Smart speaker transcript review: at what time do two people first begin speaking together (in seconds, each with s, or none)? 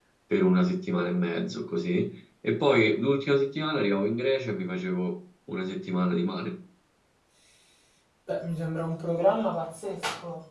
none